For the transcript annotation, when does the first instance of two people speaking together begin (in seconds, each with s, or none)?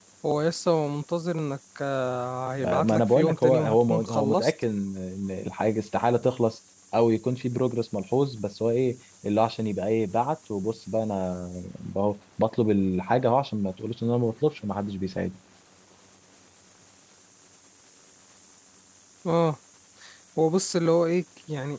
2.6 s